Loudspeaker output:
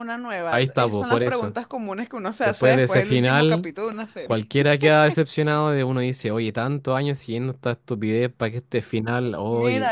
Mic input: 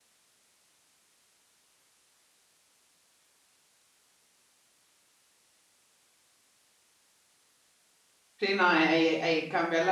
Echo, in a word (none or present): none